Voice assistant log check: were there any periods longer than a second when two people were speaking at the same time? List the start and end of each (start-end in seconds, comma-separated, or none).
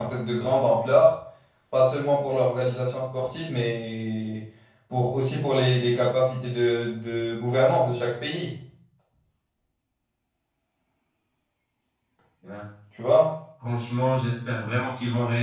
none